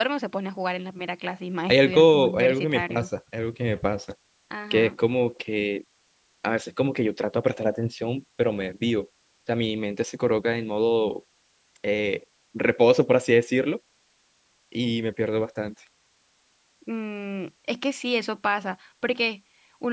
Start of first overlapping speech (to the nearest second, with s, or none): 2 s